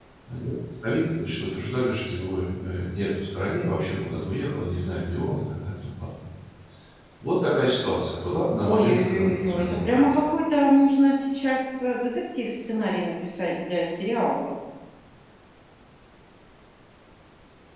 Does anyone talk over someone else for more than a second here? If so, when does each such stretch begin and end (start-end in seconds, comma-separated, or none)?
8.7-10.2